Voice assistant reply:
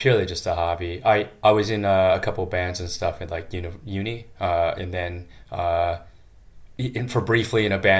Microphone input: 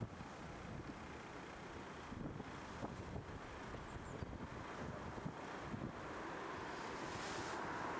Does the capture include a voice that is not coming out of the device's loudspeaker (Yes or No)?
No